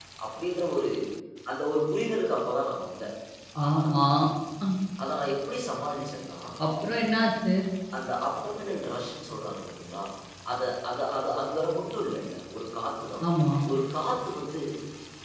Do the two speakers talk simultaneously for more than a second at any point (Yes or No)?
No